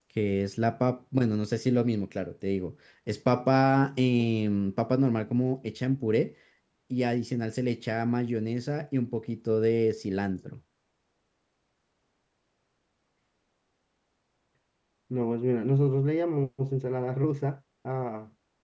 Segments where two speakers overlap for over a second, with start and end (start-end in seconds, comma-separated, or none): none